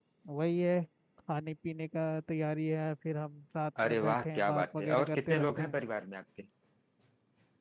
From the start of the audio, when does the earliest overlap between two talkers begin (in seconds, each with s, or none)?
3.8 s